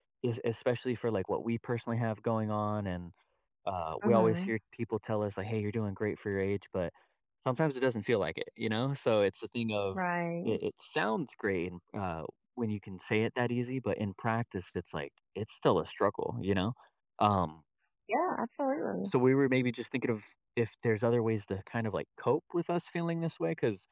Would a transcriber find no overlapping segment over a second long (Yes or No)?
Yes